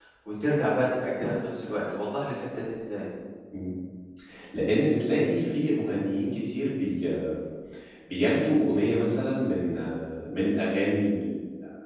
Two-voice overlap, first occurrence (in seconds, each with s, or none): none